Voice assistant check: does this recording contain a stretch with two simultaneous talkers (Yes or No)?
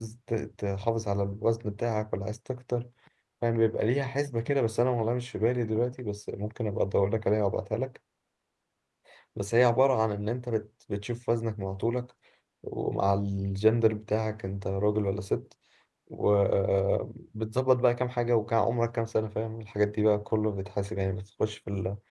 No